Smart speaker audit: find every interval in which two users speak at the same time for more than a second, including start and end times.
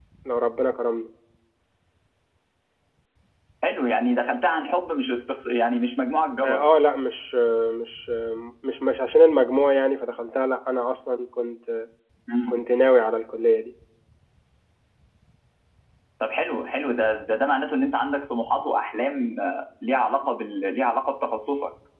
none

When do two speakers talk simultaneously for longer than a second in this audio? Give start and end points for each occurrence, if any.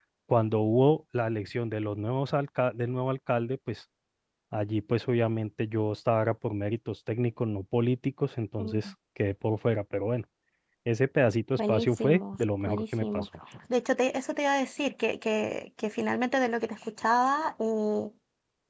11.6-13.3

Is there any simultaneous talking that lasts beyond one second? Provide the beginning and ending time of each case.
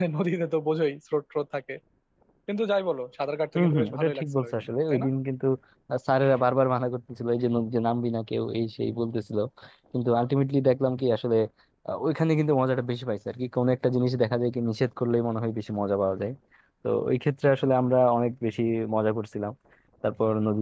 3.5-5.1

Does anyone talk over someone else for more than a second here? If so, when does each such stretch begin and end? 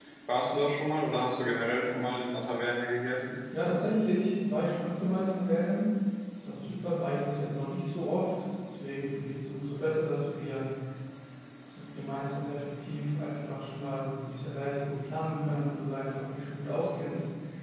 none

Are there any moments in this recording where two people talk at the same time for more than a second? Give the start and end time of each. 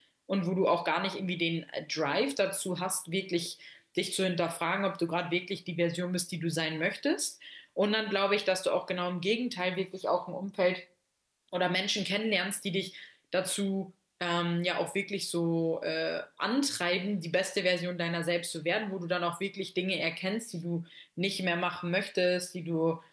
none

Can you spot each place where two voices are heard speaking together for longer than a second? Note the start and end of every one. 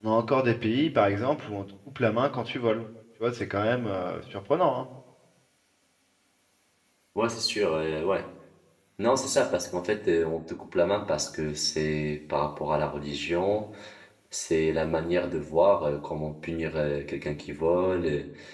none

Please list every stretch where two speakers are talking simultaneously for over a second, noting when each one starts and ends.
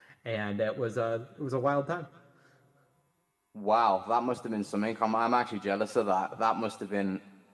none

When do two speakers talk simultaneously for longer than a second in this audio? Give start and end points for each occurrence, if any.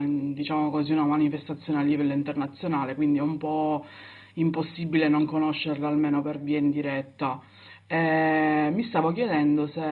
none

